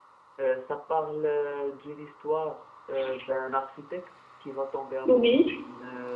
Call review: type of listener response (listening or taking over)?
listening